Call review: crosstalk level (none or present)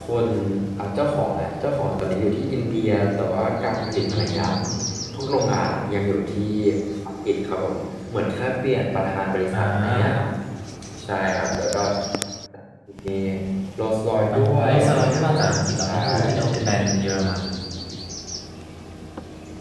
present